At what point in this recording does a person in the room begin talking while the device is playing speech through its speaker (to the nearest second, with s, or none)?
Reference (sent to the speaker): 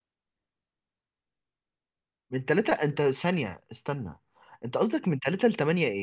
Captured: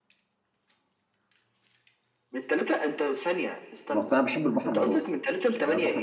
4 s